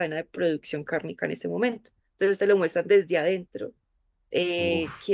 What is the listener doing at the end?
listening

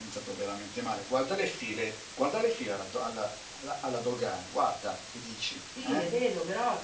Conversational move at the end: taking over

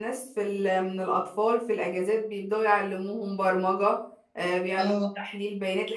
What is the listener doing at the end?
listening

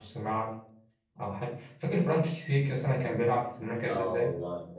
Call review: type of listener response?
taking over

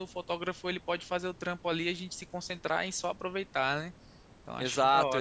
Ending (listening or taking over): taking over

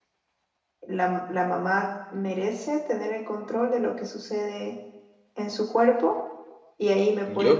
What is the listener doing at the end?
listening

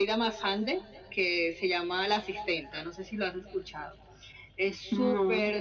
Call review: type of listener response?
listening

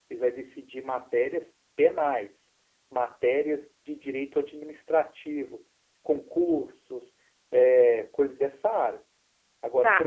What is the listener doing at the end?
taking over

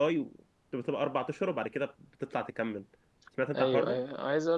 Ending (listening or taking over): taking over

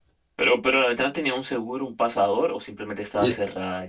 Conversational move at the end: taking over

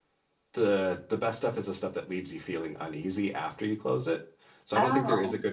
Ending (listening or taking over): listening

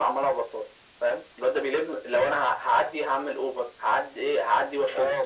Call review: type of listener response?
taking over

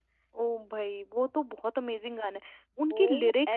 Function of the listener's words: taking over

